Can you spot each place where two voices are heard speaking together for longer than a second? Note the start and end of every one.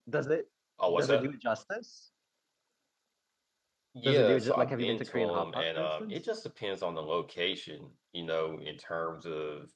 4.0-6.2

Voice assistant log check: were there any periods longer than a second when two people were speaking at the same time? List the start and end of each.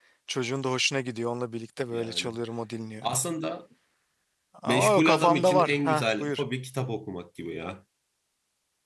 4.7-6.4

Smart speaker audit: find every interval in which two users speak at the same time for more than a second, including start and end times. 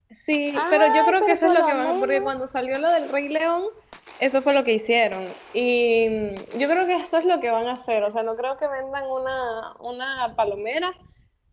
0.5-2.2

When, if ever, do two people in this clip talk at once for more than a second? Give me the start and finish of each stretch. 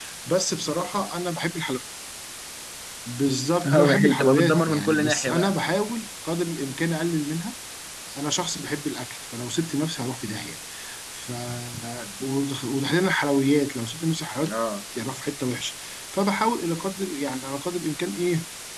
3.6-5.6

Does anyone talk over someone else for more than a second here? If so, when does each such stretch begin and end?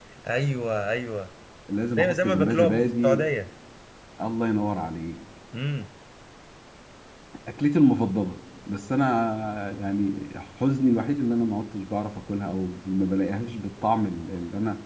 2.0-3.2

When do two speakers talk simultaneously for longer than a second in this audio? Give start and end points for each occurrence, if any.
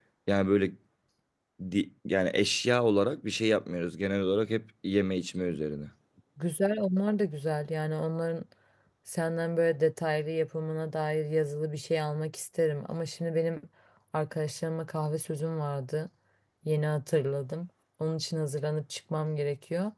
none

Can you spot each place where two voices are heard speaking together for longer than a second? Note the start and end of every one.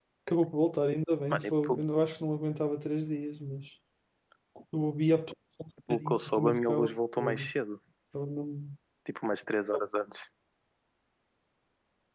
5.9-7.5

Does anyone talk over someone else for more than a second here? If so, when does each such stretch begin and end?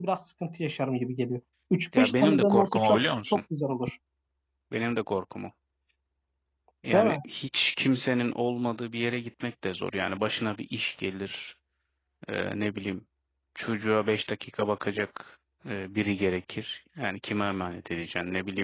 2.0-3.4

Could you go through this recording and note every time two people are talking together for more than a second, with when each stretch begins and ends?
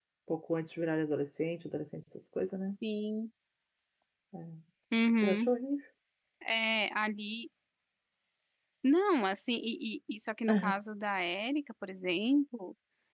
none

